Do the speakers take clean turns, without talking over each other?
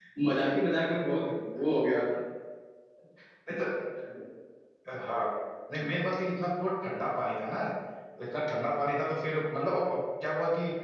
Yes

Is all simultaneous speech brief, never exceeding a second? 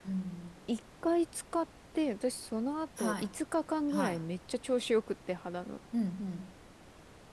Yes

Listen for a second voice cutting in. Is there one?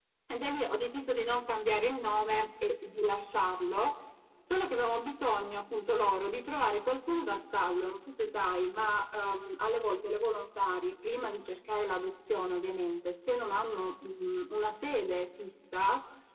No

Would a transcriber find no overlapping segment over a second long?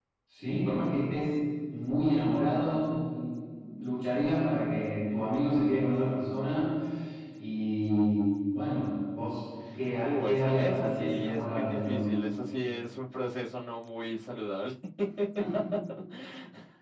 No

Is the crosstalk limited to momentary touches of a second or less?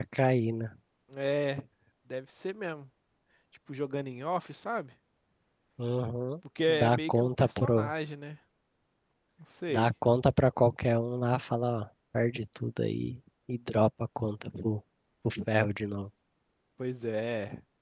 No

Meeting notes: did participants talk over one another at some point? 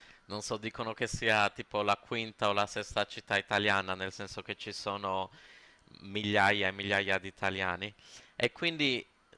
No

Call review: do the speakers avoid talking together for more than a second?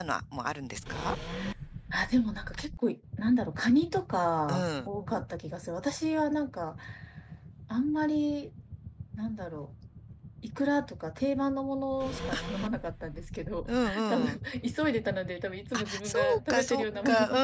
No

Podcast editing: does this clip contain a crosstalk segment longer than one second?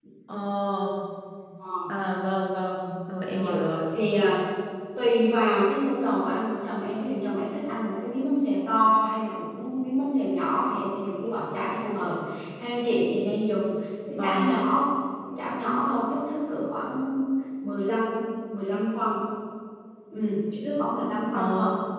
No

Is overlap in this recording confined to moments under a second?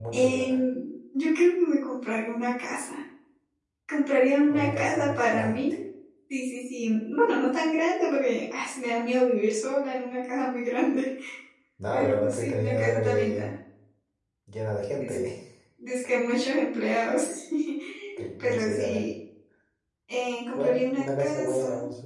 No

